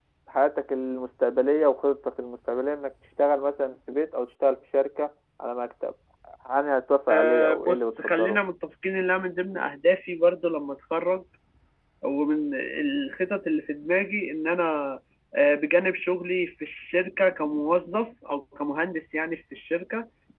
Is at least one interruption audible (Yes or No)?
Yes